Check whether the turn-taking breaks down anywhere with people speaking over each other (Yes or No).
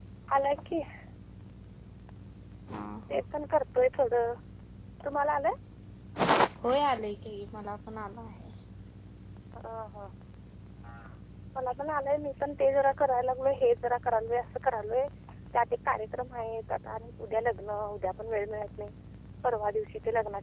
No